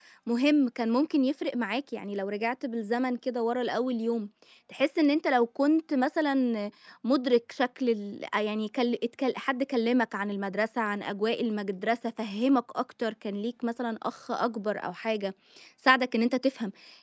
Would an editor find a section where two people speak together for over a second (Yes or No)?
No